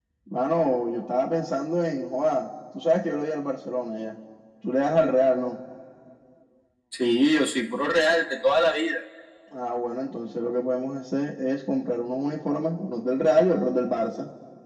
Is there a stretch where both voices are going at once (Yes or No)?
No